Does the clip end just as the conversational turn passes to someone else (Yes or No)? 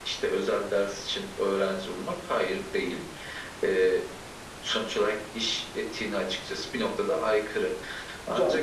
Yes